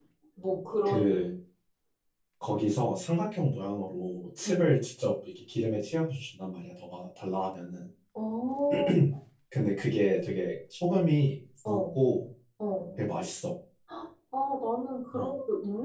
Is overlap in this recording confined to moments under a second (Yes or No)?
Yes